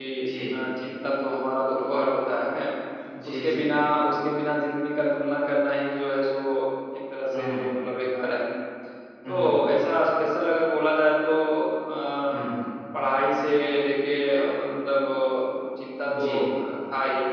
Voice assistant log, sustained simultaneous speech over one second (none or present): none